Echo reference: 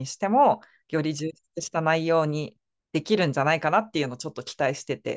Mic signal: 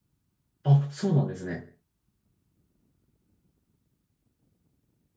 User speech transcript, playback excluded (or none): あ、そうなんですね。